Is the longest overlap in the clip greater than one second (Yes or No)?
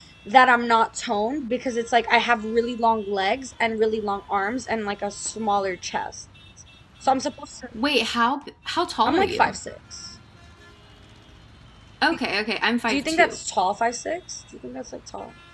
No